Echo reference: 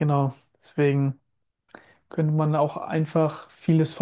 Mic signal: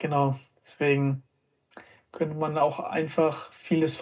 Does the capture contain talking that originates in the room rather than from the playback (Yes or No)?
No